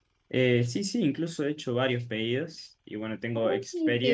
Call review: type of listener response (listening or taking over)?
taking over